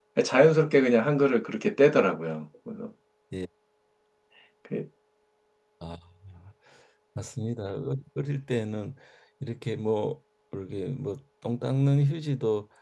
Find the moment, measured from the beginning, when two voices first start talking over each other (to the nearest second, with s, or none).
none